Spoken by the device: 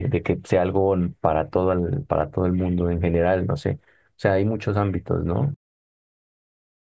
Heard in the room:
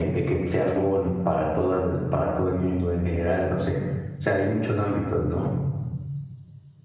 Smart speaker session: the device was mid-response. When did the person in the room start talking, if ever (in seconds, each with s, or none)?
none